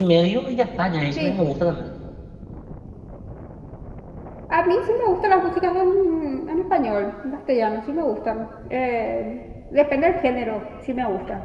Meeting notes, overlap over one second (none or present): none